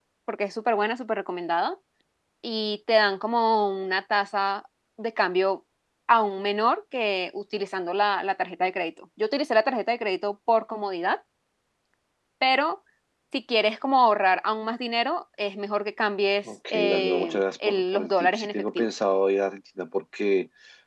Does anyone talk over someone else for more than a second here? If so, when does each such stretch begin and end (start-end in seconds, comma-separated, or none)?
16.7-18.9